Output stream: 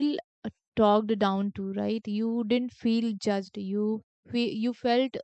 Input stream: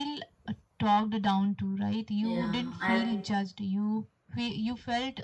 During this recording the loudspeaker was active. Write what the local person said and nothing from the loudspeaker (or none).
yeah i think